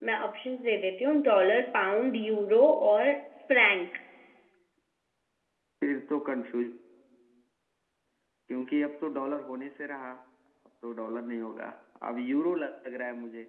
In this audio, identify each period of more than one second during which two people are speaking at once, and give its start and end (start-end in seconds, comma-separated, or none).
none